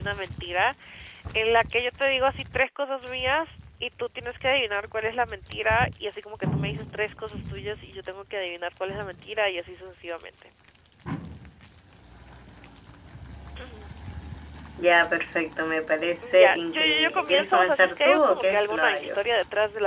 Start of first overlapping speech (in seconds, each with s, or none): 16.2 s